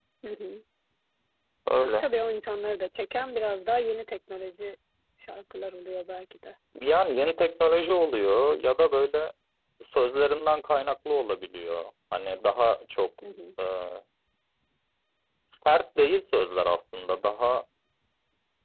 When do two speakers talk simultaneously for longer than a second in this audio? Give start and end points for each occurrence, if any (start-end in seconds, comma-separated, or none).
none